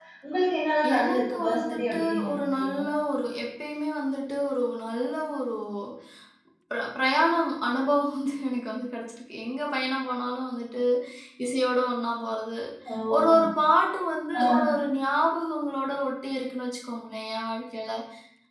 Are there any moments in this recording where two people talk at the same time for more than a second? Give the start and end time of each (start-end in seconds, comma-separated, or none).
1.0-2.8